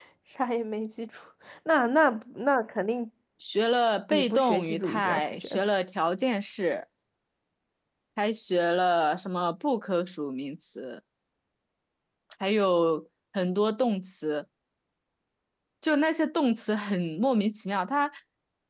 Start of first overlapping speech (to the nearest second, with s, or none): 4 s